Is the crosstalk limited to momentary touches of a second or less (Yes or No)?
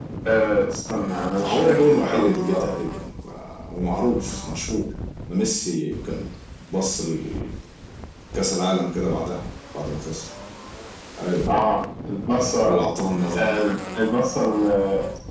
No